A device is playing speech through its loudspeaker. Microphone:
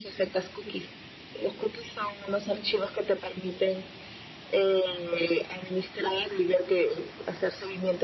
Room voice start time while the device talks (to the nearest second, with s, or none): none